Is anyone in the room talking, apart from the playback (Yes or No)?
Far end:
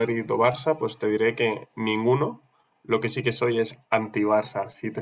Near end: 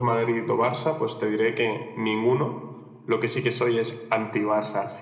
No